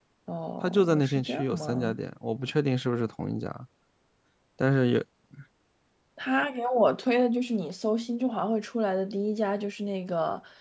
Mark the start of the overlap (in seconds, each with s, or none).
0.6 s